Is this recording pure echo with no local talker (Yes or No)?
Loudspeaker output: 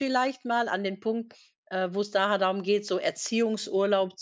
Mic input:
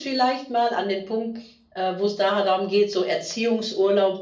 Yes